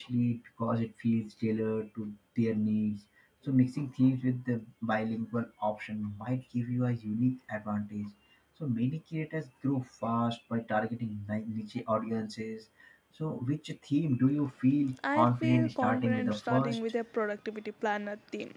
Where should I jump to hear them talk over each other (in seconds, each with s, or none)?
15.0 s